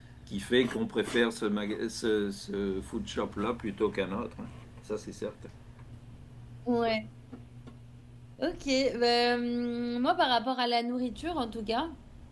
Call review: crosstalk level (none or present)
none